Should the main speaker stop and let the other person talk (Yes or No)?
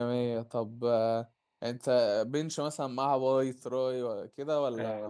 Yes